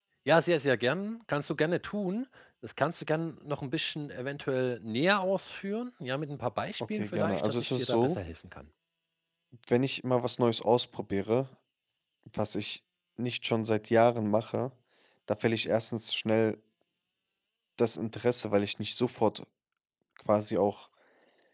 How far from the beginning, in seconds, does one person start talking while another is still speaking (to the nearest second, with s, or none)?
7 s